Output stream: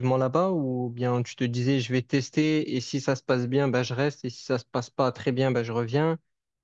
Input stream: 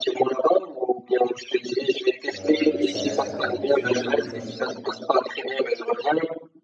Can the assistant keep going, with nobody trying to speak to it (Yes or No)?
No